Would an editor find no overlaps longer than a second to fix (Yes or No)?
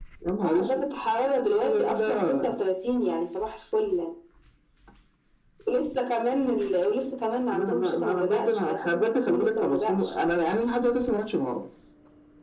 No